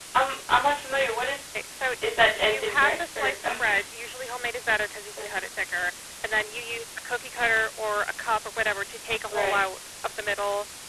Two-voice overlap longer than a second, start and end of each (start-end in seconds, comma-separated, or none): 2.4-3.6